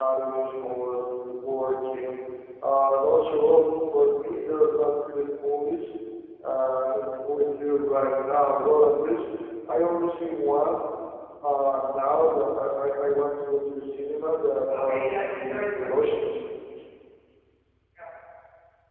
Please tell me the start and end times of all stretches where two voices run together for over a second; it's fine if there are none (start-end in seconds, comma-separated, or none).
14.7-16.0